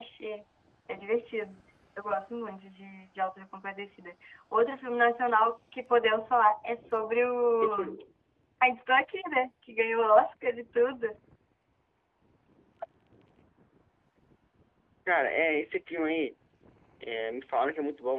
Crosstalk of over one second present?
No

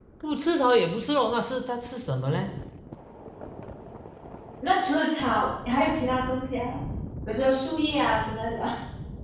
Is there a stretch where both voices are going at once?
No

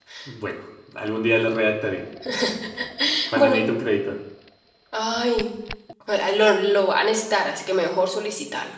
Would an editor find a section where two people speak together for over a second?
No

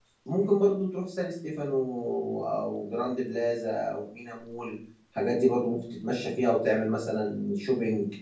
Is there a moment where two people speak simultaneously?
No

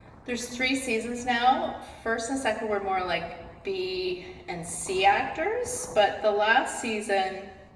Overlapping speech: No

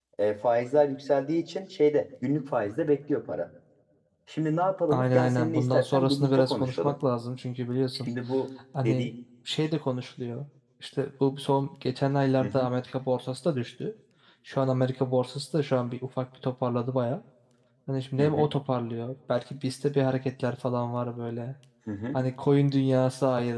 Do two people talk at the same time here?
Yes, from 4.9 s

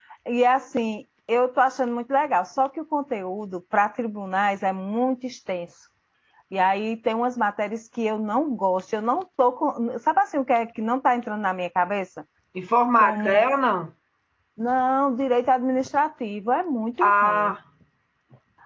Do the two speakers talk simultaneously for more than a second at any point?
No

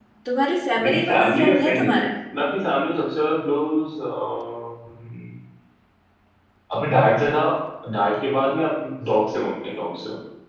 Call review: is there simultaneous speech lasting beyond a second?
Yes, from 0.8 s

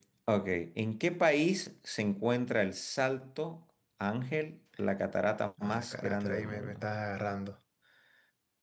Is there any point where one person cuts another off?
Yes, from 5.6 s

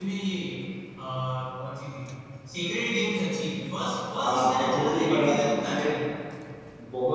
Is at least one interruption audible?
Yes, from 4.1 s

